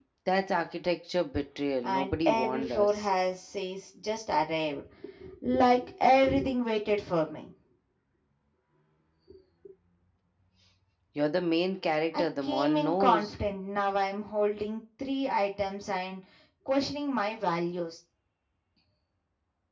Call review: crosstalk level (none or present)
present